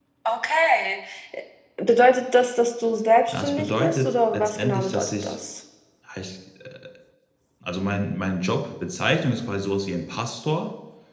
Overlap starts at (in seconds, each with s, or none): 3.3 s